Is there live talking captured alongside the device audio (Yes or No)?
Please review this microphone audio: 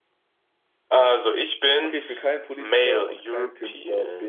Yes